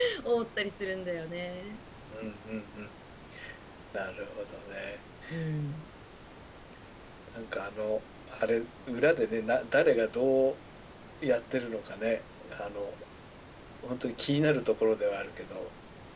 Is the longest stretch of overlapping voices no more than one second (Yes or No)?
Yes